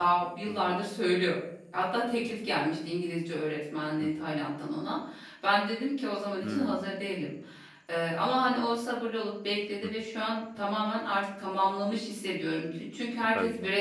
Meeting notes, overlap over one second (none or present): none